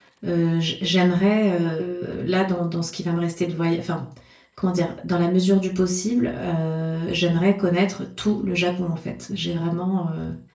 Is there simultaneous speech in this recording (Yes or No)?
No